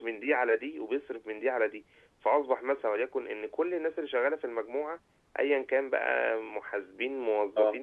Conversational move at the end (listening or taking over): listening